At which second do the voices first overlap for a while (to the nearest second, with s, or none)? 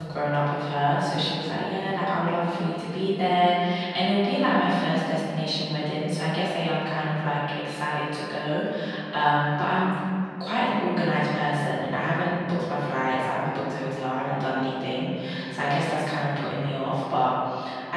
none